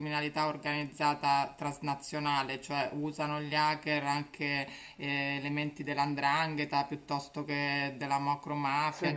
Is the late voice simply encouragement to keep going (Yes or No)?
Yes